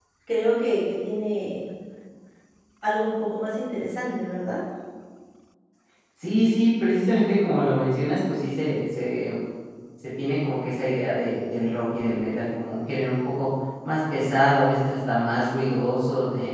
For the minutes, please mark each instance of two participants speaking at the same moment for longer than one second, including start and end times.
none

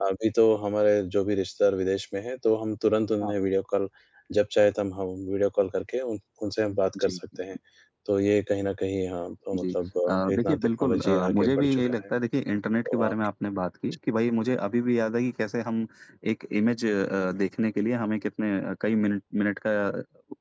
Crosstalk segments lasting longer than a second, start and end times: 10.1-12.0

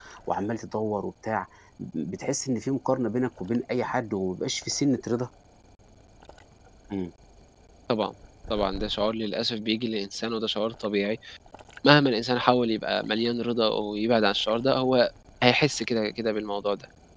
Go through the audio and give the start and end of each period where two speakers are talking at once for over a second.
none

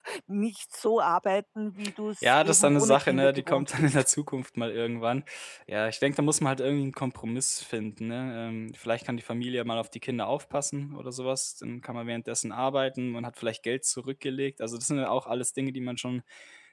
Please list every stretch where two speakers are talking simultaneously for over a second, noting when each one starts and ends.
2.2-4.0

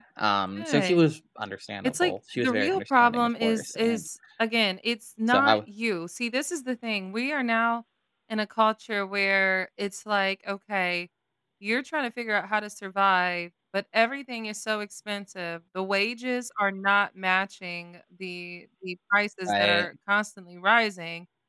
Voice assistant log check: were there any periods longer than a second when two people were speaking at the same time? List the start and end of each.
1.8-4.0

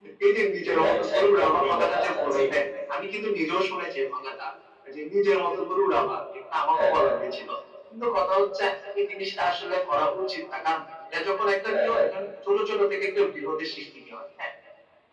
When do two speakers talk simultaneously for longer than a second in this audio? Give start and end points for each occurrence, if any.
0.8-2.4

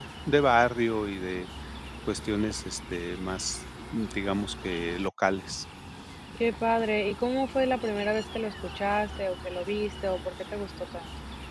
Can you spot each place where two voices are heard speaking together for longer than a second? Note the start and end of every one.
none

